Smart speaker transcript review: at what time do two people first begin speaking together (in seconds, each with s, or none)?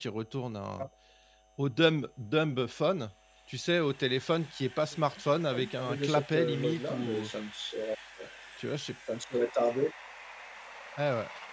4.9 s